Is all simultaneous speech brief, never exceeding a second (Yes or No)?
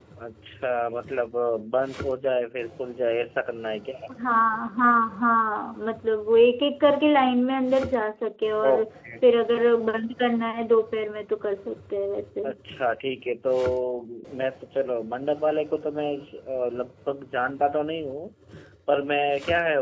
Yes